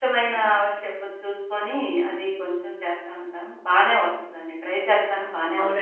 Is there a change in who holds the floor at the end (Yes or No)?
Yes